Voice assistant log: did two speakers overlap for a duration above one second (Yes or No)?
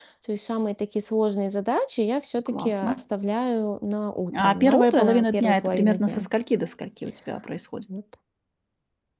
Yes